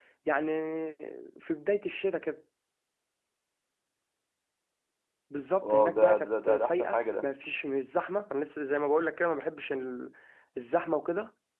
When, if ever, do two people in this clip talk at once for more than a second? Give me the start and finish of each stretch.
5.7-7.2

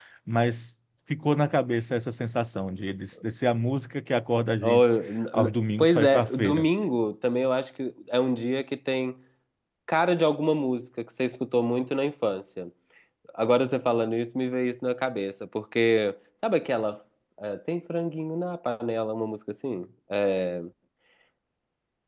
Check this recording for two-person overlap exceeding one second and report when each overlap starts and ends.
5.3-6.7

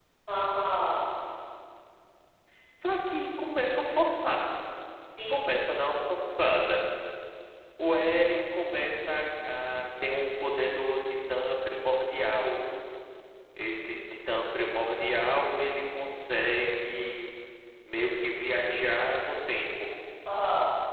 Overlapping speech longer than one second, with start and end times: none

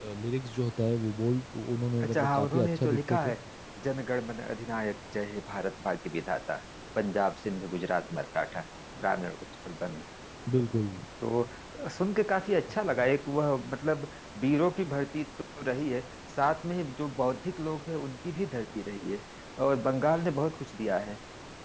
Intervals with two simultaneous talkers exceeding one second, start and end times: 2.0-3.3

